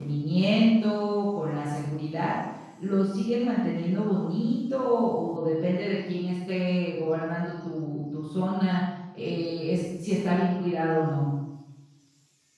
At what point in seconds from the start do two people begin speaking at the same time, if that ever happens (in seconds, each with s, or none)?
none